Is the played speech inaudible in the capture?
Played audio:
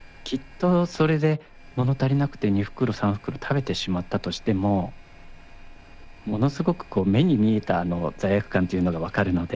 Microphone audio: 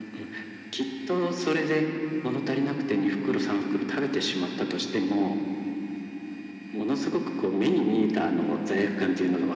No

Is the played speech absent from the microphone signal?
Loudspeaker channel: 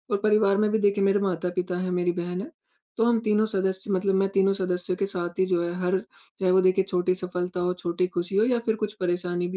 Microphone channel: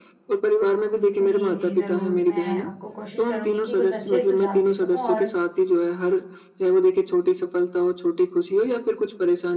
No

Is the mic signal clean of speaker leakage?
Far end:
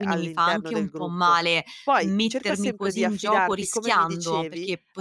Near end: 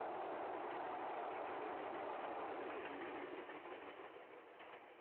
Yes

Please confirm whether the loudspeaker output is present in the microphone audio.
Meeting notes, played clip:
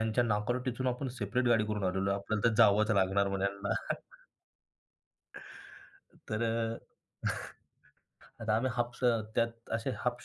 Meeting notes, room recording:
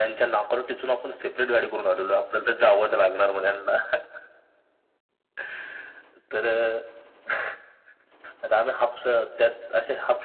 Yes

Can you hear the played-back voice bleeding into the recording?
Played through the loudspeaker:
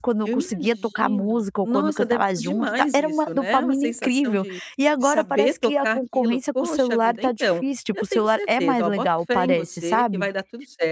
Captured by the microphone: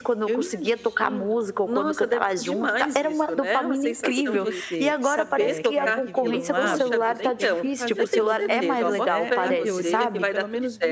Yes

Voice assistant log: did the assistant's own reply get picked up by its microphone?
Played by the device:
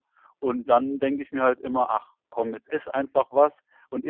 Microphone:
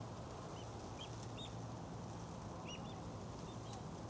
No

